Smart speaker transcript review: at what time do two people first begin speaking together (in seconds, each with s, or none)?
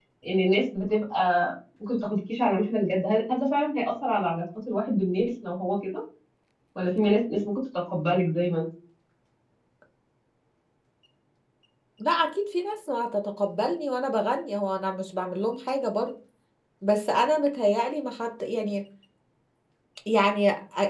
none